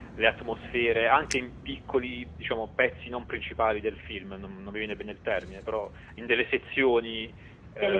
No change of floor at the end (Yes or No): Yes